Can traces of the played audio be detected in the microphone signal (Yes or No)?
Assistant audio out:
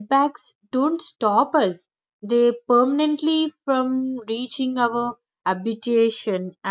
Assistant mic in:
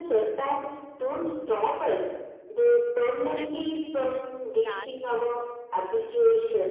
Yes